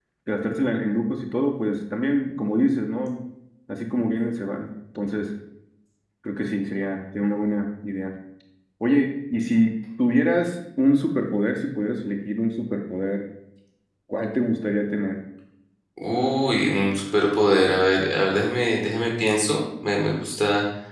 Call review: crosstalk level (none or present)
none